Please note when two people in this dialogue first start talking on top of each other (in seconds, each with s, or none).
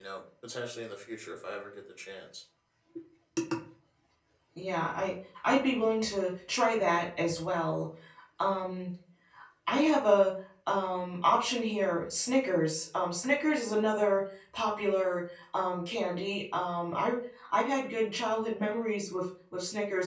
none